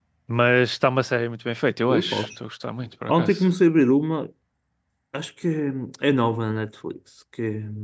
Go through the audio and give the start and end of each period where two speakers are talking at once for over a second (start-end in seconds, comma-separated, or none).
none